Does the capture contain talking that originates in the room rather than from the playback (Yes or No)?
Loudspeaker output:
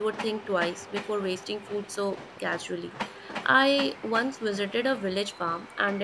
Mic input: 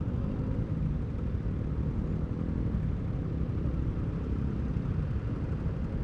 No